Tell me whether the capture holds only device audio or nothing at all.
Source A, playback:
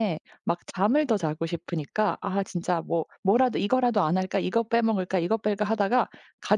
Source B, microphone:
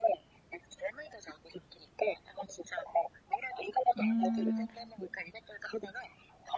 No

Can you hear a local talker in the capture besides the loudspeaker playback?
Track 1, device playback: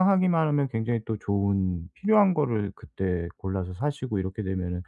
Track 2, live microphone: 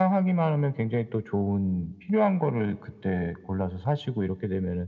No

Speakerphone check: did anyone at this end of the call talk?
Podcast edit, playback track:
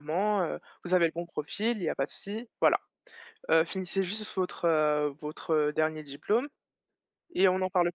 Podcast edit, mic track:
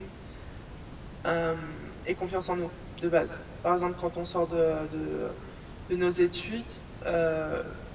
Yes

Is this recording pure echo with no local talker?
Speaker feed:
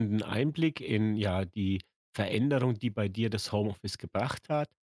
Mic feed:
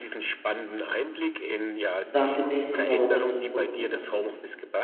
No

